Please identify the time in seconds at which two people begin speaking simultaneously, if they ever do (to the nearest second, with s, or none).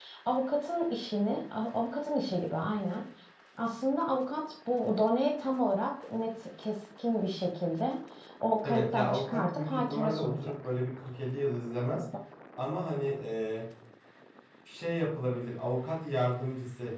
9 s